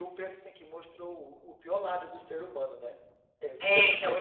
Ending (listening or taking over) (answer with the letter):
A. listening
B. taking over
B